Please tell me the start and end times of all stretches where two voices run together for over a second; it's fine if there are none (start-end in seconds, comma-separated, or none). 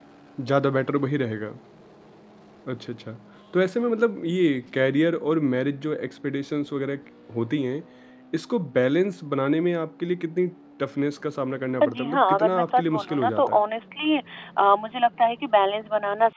11.8-13.6